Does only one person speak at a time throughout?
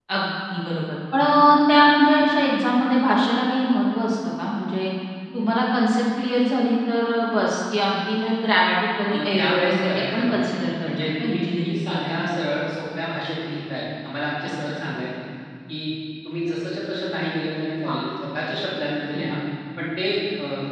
No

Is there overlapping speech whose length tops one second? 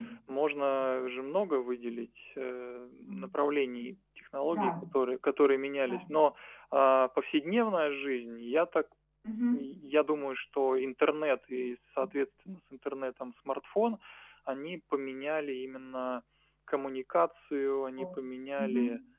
No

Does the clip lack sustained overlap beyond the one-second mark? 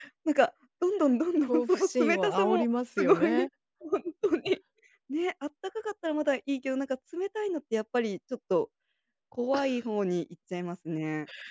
No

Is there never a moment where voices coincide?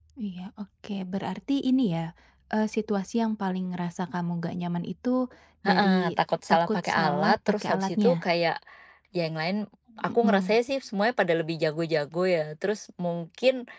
No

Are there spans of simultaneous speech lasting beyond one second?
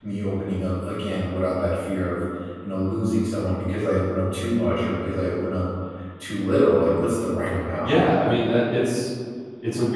No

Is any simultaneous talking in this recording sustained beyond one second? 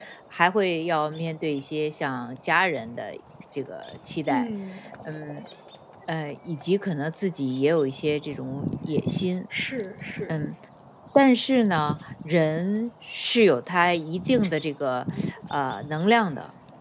No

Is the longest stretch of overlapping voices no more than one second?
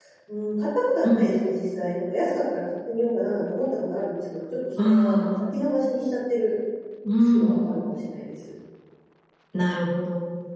Yes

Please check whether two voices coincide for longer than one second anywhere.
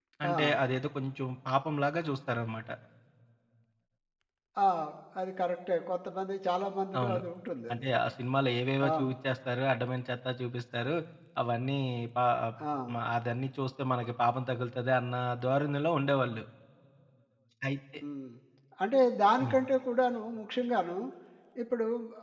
No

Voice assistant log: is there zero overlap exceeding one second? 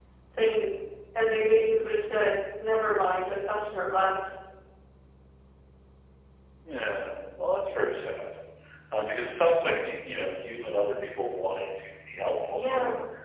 Yes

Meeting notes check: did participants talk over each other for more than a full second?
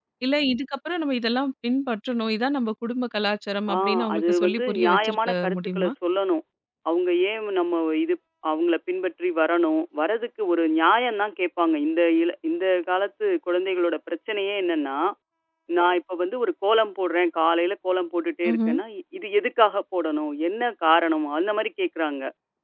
Yes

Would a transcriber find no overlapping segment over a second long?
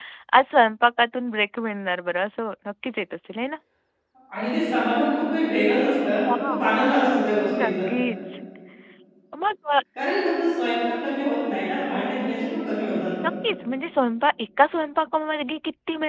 Yes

